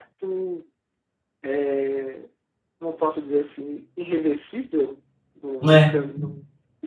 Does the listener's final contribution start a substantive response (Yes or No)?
No